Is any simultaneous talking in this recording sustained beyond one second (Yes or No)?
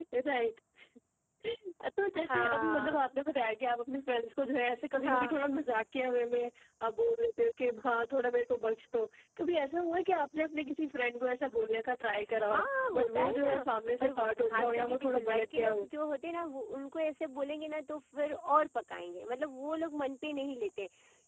Yes